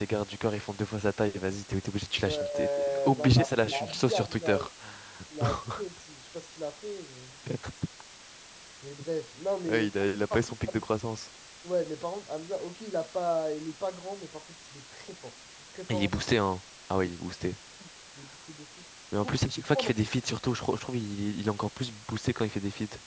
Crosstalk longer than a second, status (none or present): present